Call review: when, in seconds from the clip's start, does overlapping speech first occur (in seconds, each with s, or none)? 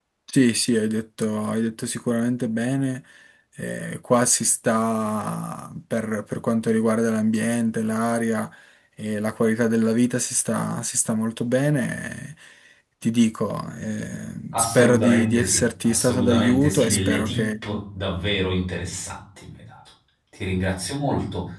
14.5 s